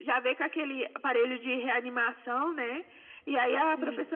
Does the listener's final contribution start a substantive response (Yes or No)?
No